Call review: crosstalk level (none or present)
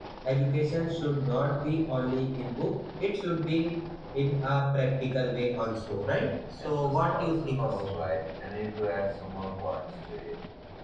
present